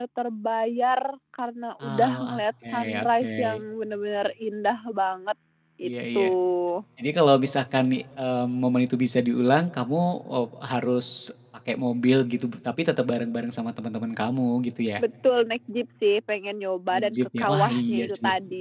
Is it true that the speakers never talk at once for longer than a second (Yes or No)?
No